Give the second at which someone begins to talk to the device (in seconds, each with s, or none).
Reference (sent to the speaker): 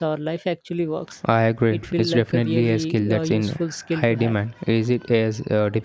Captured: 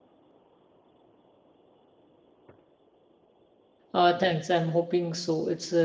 3.9 s